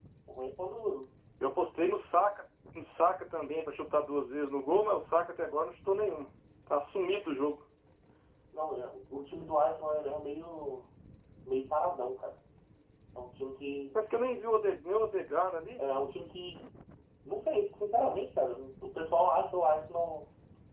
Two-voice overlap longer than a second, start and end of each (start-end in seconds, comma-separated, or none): none